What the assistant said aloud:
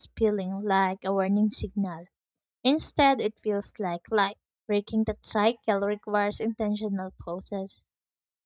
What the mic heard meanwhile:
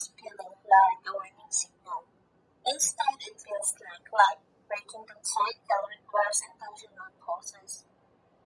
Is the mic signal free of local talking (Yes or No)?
Yes